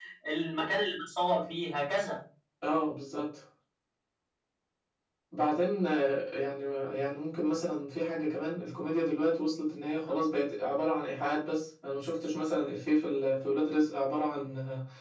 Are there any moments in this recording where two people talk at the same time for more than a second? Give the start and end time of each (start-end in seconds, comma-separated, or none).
none